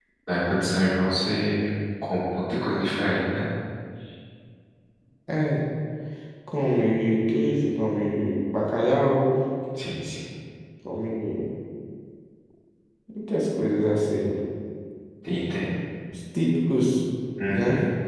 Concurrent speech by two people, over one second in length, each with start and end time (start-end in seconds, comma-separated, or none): none